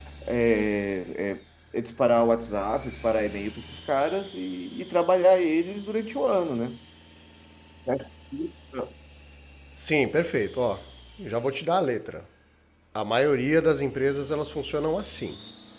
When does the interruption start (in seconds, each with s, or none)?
none